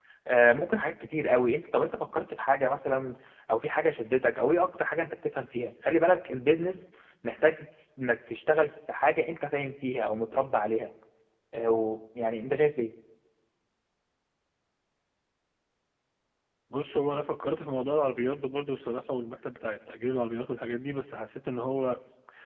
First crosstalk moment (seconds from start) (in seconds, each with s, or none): none